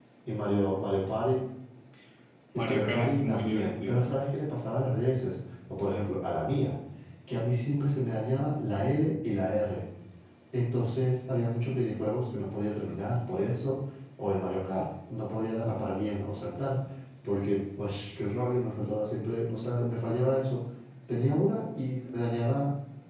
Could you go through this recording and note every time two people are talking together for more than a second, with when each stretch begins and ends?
2.5-4.1

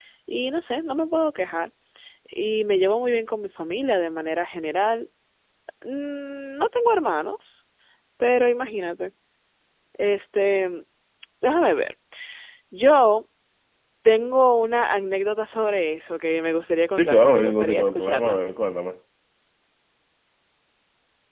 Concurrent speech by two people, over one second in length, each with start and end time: 17.0-18.4

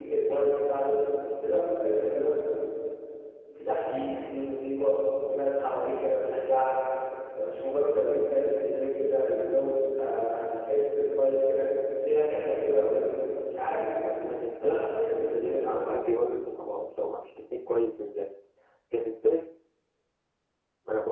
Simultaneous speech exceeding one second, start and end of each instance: 14.6-16.1

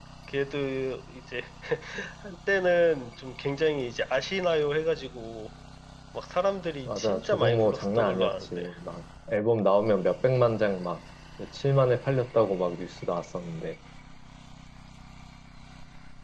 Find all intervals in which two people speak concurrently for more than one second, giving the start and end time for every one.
6.9-8.6

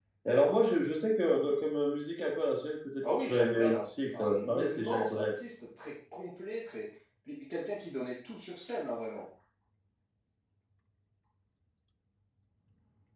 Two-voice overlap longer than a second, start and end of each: 3.0-5.3

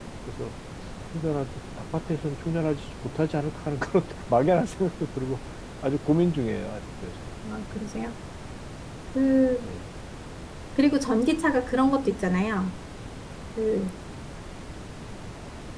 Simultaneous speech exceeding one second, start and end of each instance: none

